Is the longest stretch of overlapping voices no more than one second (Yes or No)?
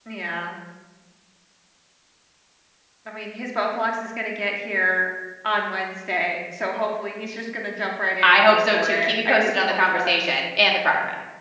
No